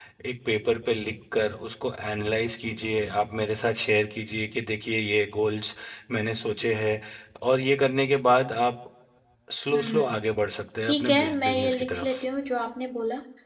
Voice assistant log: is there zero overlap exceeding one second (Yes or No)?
No